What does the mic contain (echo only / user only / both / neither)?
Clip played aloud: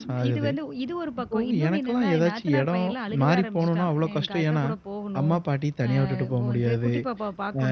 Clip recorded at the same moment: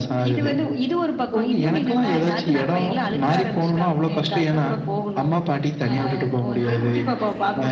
both